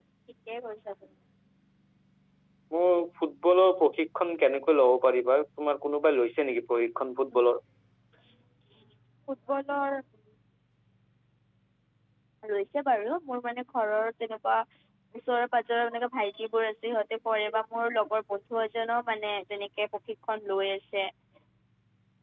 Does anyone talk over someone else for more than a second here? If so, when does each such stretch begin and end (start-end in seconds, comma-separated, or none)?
none